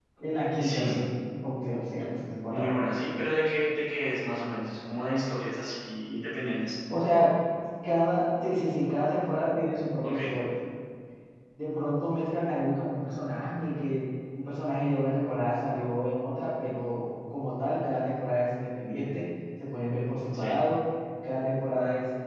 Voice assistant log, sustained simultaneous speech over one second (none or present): none